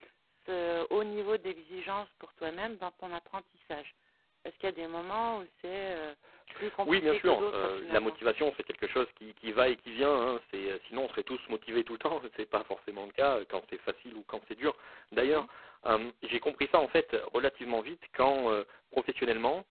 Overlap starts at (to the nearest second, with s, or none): 7 s